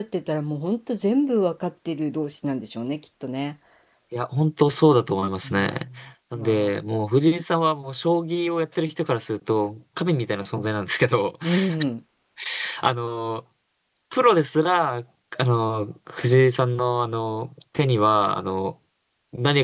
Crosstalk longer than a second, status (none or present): none